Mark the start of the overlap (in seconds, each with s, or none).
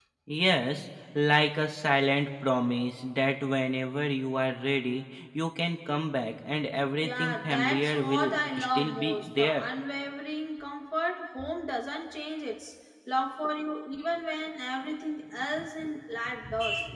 7.0 s